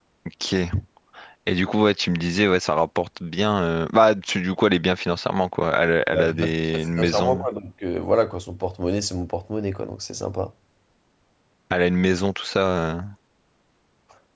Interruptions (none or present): present